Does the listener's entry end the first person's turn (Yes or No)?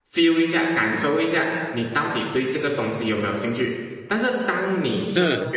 No